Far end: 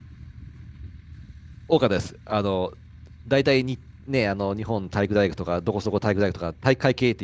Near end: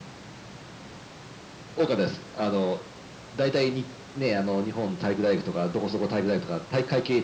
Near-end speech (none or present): none